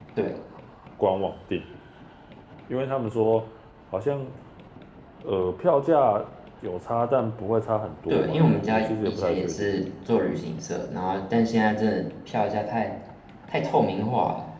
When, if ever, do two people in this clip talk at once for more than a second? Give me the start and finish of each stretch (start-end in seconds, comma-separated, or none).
8.1-9.7